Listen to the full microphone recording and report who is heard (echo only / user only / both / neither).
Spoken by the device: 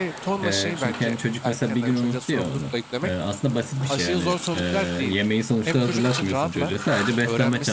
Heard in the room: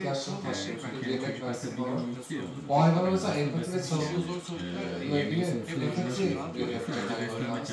both